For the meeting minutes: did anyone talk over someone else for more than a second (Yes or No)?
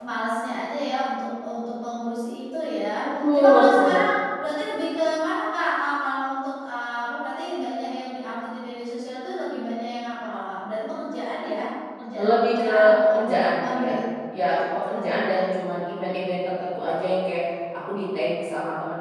Yes